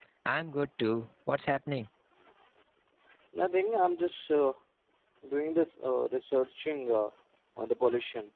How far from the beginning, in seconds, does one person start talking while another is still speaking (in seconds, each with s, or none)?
none